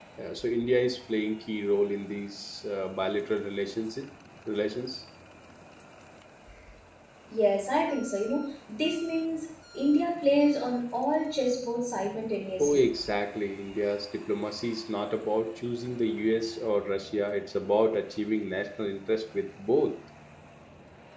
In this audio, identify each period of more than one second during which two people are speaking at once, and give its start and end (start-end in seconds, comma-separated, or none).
none